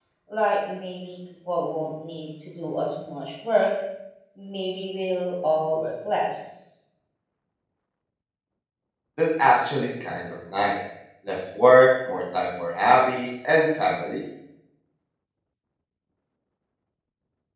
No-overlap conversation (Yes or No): Yes